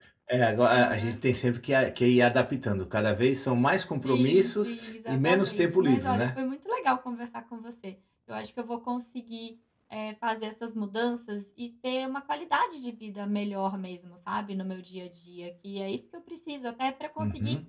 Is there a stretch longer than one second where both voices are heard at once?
Yes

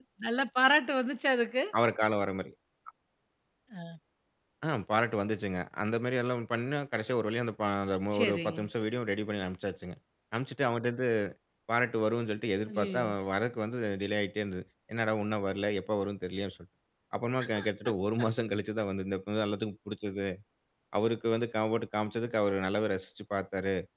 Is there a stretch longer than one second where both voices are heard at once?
No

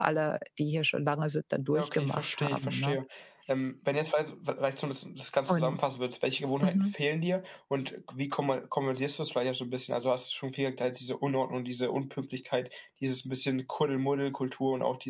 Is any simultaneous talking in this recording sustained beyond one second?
Yes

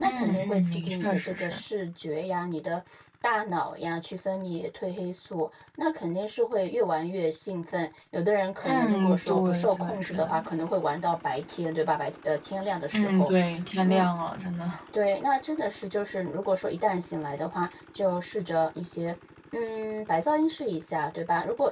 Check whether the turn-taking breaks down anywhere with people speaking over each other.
Yes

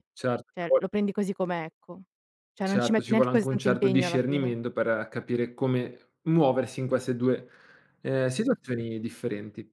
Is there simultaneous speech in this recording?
Yes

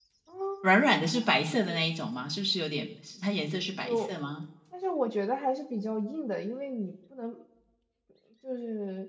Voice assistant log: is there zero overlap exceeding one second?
Yes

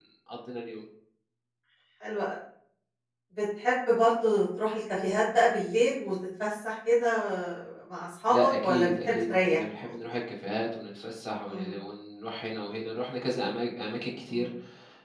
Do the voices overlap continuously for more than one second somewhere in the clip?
Yes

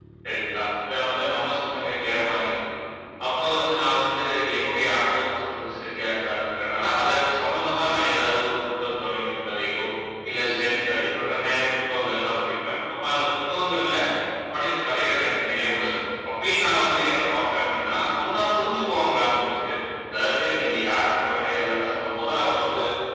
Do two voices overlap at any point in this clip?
No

